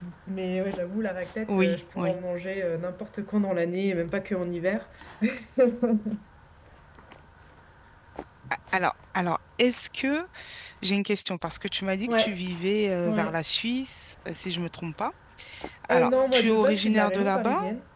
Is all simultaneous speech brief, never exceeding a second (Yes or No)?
No